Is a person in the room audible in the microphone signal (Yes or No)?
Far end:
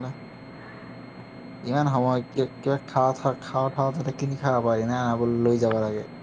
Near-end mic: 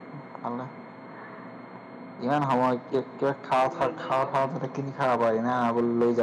Yes